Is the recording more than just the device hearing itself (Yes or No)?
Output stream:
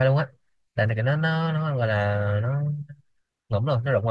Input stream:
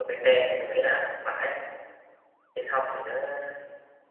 Yes